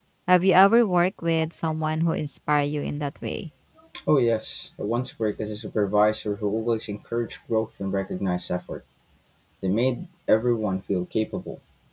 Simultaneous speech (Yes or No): No